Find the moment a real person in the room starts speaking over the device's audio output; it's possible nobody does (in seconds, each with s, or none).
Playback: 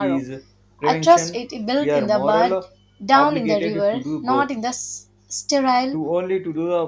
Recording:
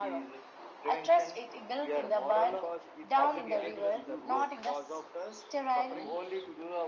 2.3 s